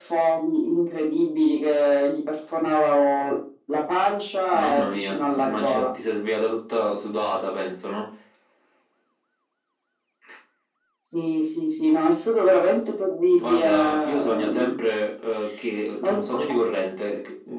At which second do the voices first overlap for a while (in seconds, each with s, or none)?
4.5 s